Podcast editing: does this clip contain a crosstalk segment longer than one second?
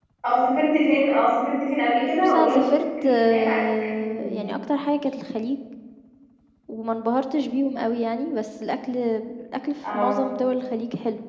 Yes, from 2.3 s

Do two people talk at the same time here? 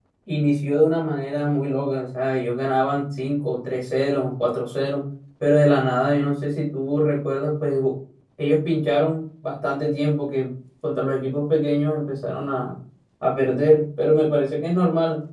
No

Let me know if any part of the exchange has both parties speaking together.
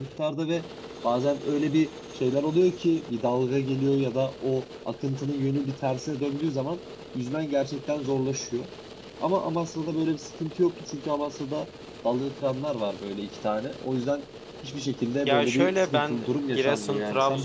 Yes, from 15.2 s

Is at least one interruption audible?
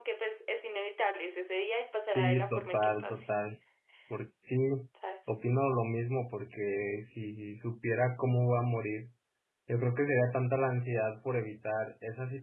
Yes, from 2.0 s

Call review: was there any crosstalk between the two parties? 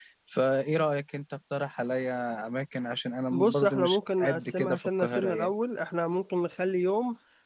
Yes, from 3.3 s

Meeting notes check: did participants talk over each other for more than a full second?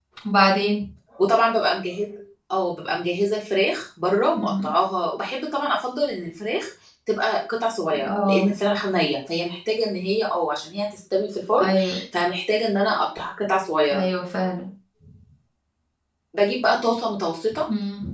No

